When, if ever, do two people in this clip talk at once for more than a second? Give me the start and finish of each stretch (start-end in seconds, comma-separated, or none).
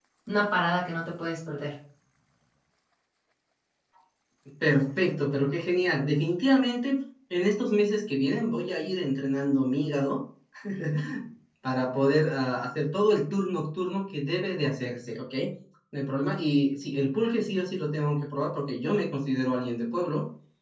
none